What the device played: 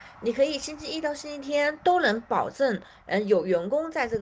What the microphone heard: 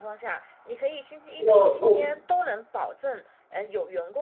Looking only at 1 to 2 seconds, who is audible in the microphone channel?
both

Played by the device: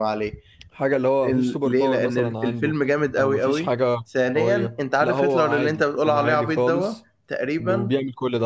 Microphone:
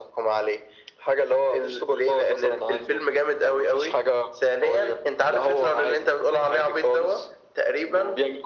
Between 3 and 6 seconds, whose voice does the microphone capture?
echo only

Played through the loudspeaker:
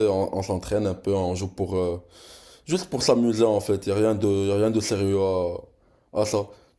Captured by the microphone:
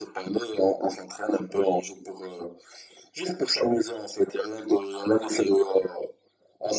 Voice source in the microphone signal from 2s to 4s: echo only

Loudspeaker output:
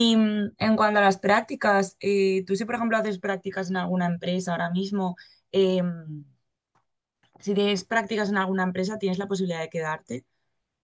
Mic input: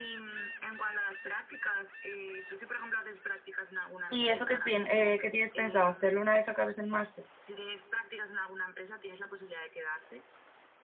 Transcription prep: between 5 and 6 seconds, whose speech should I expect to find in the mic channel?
both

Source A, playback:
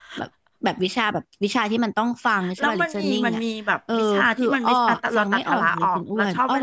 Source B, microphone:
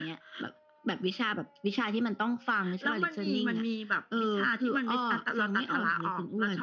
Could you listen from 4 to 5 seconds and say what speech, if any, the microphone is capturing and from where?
echo only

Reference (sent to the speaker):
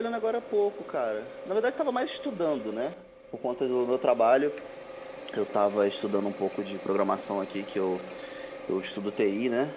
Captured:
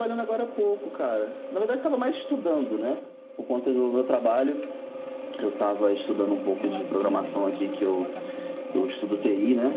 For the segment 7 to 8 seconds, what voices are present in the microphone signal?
both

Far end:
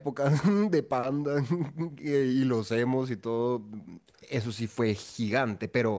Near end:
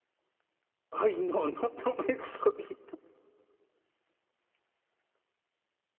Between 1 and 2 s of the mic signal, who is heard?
user only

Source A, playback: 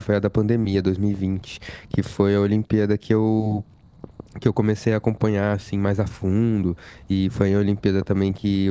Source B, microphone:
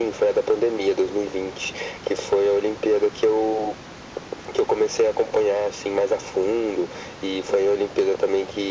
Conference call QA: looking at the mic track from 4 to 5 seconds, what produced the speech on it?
echo only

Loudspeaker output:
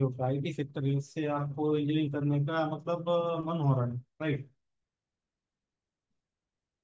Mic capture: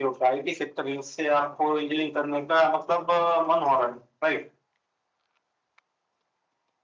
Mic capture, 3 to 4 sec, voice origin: echo only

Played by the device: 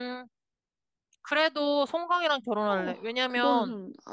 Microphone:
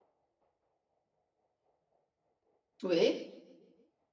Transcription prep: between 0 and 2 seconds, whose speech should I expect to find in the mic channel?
neither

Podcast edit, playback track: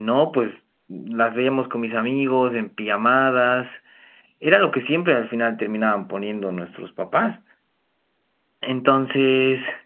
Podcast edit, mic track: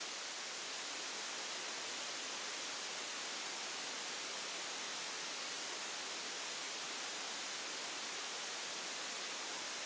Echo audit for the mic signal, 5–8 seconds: neither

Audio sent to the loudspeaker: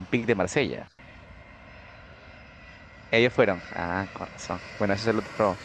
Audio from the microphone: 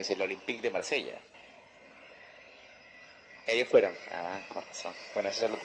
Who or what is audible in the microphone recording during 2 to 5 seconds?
echo only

